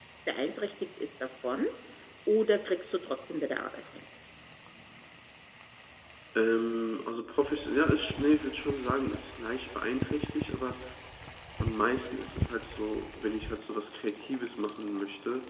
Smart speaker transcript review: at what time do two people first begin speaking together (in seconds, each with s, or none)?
none